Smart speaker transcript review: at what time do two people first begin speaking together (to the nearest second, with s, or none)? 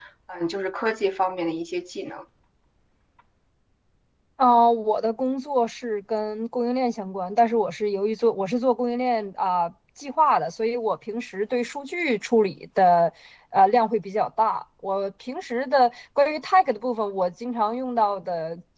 none